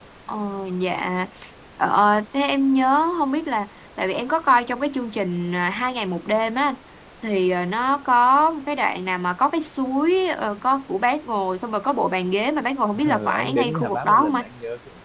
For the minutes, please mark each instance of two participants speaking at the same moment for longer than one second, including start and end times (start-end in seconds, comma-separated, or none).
13.0-14.3